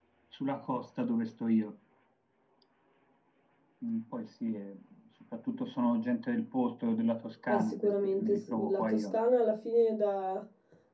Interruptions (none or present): present